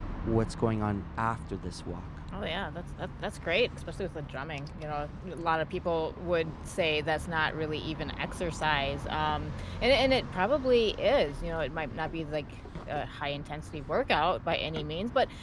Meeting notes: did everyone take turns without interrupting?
Yes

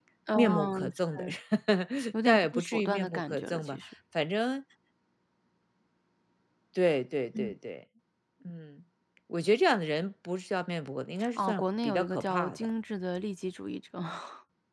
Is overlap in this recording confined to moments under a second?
No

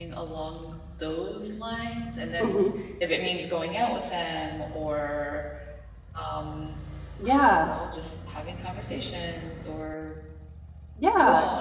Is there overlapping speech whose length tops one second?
No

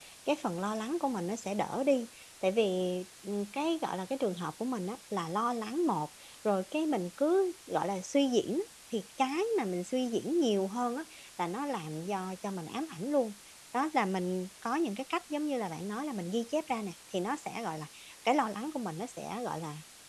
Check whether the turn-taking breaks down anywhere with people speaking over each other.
No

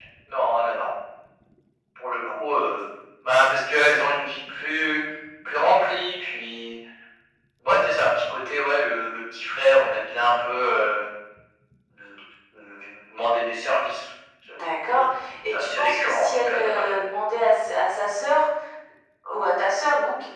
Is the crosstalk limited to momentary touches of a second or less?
No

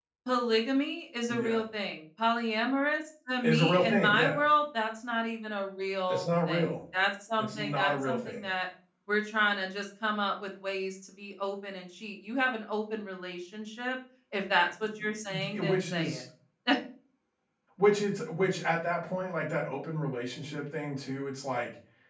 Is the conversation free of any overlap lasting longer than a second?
No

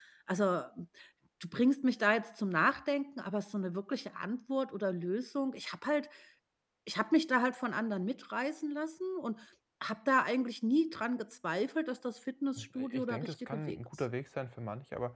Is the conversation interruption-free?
No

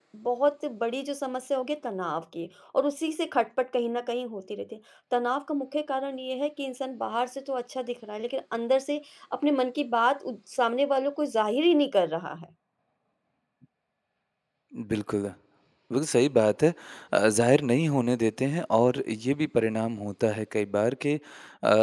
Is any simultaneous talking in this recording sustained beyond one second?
No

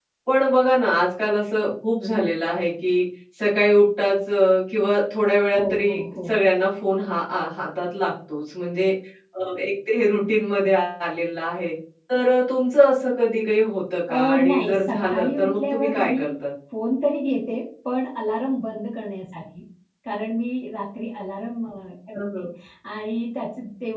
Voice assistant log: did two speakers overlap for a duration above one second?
Yes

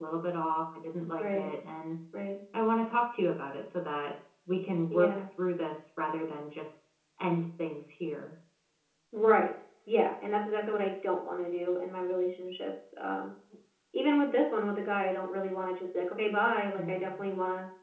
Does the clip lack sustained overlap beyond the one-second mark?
Yes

